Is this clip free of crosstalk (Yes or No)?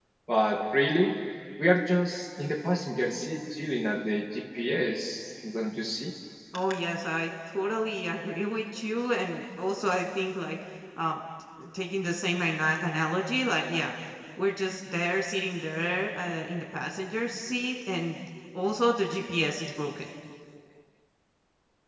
Yes